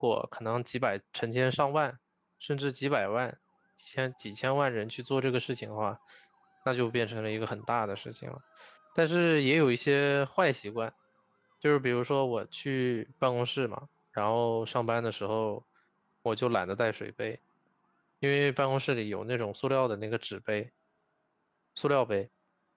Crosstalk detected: No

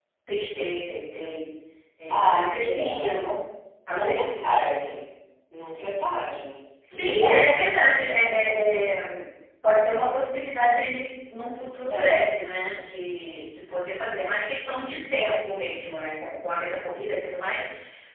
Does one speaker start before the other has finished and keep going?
Yes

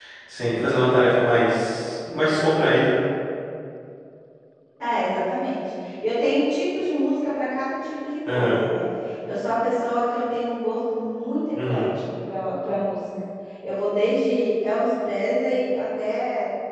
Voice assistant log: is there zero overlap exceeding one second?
Yes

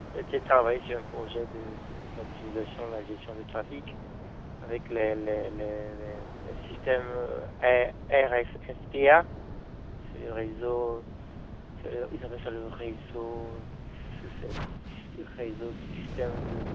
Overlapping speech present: No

